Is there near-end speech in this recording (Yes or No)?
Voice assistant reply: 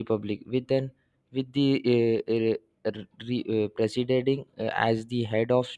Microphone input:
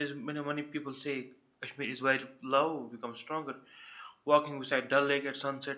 Yes